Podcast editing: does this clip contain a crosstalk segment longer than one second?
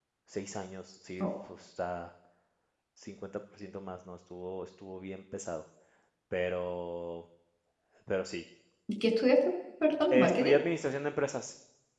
No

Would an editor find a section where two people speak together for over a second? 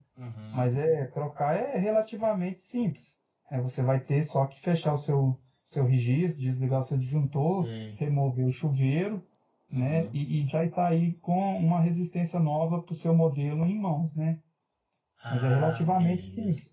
Yes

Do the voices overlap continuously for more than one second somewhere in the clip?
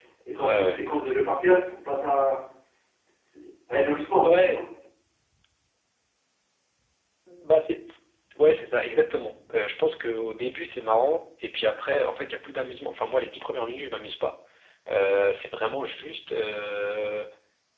No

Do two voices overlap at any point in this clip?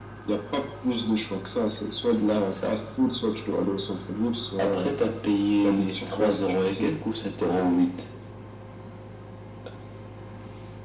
Yes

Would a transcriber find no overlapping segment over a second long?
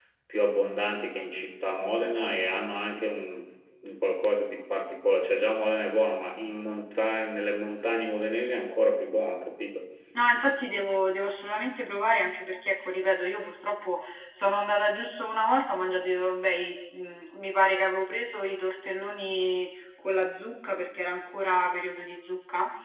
Yes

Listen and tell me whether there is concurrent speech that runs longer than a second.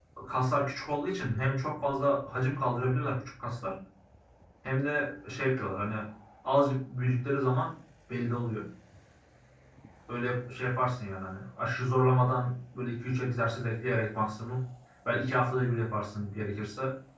No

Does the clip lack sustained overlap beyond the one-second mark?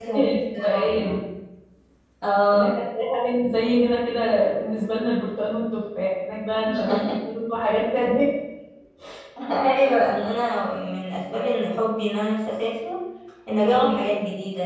Yes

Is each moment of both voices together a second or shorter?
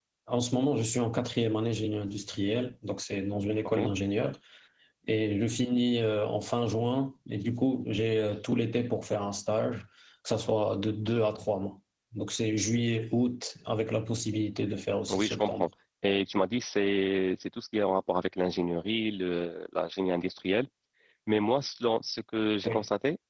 Yes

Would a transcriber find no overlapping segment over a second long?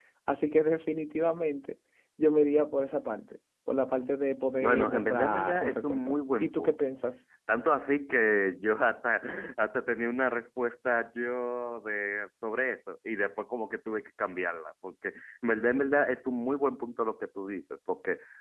No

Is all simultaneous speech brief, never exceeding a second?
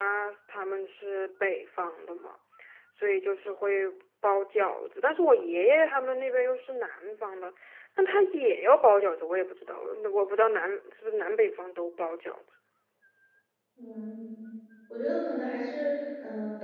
Yes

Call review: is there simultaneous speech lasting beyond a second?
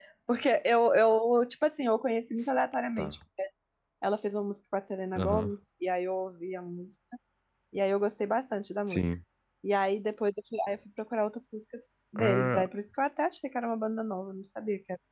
No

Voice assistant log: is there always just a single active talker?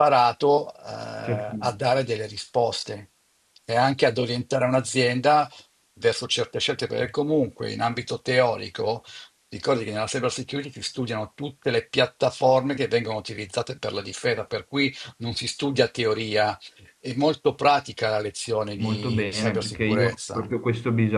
No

